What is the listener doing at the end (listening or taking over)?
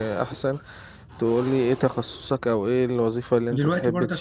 taking over